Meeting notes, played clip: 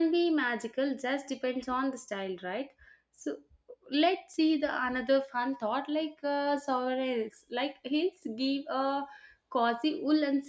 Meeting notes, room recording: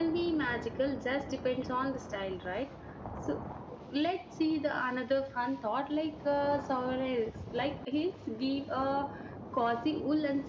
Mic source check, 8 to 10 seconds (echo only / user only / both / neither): echo only